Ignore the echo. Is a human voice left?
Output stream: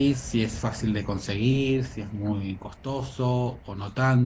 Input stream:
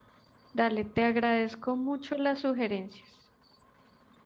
Yes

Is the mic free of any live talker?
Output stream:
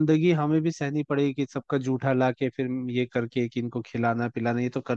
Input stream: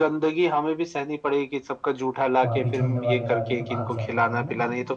No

